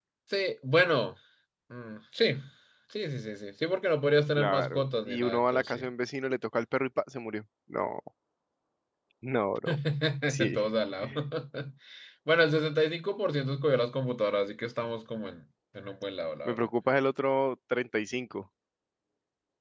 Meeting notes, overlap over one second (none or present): present